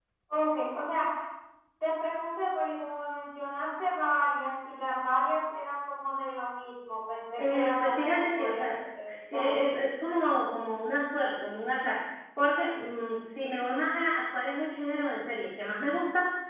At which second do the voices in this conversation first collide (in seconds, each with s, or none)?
7.4 s